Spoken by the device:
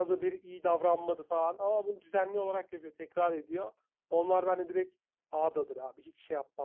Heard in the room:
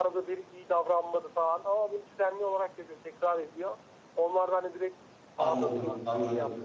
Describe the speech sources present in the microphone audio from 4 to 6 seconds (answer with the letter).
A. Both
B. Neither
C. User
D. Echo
A